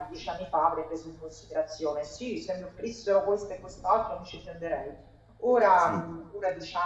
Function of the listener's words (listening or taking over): listening